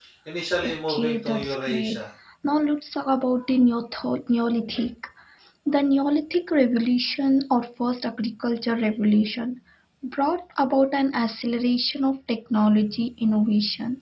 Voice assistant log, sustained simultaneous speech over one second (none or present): present